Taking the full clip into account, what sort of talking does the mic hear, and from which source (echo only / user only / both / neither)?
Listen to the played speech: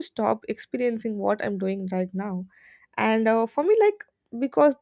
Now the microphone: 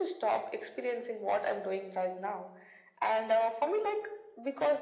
echo only